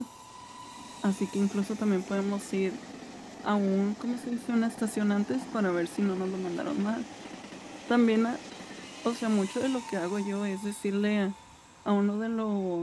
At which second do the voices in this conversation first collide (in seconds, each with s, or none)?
none